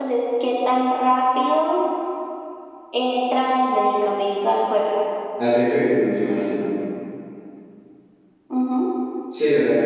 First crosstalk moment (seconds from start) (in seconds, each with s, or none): none